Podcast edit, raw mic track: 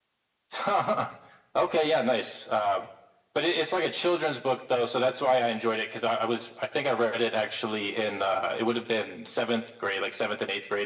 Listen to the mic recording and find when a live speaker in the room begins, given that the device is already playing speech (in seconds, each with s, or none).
none